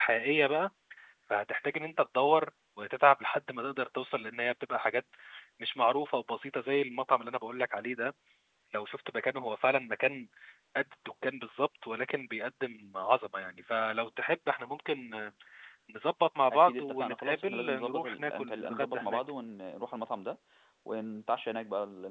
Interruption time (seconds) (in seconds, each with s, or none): 16.5 s